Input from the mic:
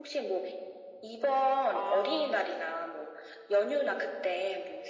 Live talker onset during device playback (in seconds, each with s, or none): 1.7 s